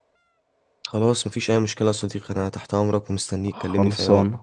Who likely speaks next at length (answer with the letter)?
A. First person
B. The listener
B